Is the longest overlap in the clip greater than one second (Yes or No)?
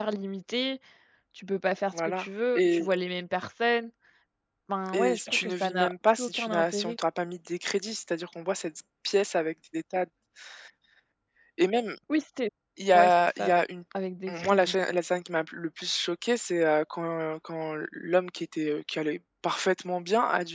Yes